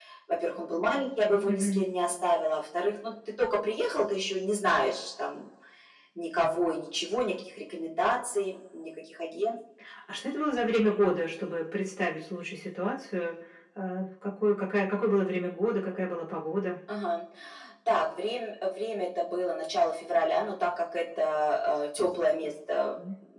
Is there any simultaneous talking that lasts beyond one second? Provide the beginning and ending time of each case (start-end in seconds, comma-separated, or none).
none